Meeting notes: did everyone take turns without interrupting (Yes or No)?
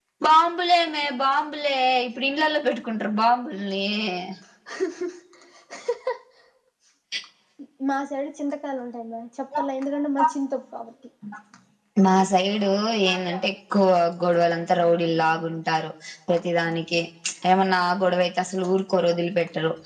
Yes